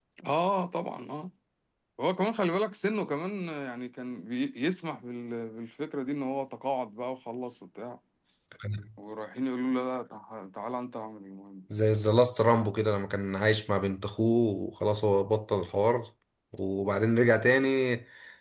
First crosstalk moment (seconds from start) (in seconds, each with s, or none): none